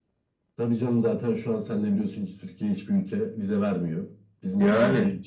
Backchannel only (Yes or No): Yes